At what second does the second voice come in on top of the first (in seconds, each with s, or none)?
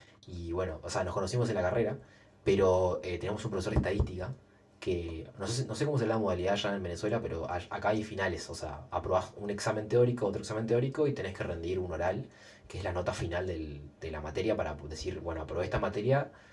none